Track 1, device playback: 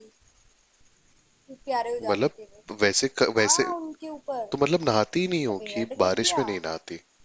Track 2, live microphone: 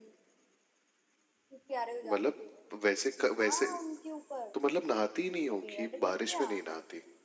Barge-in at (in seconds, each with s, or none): none